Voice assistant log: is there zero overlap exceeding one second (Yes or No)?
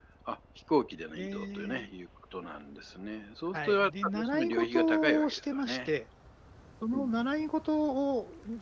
No